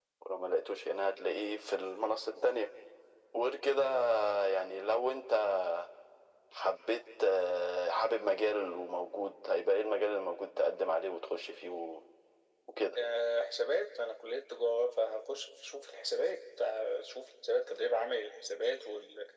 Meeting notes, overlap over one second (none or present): none